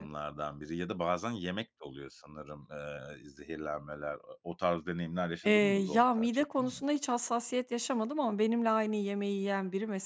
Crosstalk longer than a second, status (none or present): present